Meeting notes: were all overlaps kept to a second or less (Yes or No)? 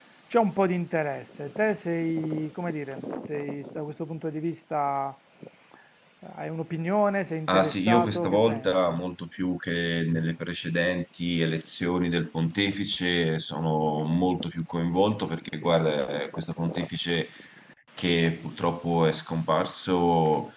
No